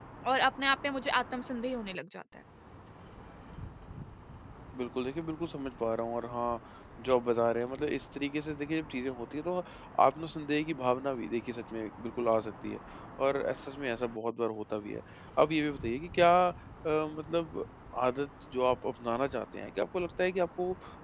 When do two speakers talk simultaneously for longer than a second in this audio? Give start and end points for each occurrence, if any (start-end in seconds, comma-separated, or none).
none